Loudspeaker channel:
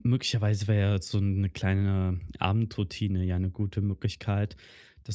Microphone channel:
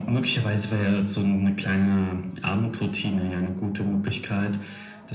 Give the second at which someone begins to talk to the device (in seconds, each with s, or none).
none